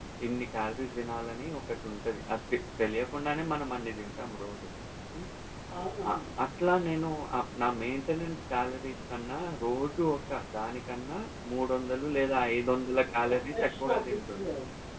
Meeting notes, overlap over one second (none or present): present